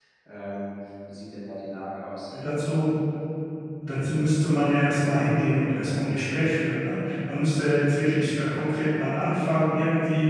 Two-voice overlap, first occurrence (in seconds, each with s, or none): none